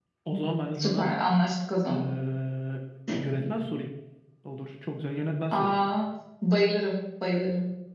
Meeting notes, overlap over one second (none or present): none